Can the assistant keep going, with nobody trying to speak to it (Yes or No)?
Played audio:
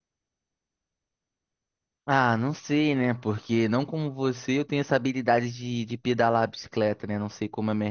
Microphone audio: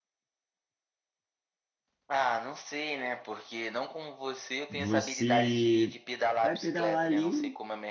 No